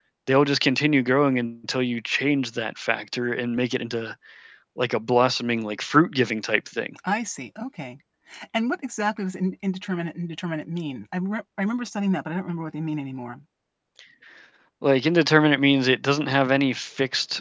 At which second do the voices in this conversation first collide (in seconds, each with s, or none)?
none